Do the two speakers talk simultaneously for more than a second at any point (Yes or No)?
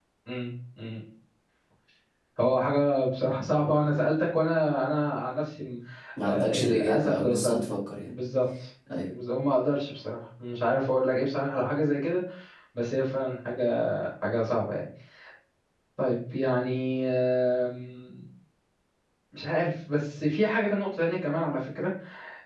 Yes